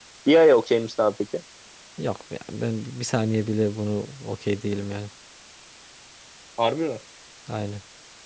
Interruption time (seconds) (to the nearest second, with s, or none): none